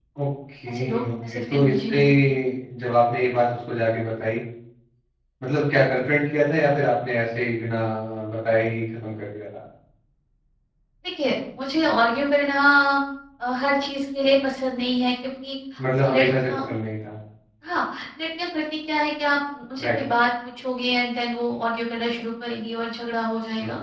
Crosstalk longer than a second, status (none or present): present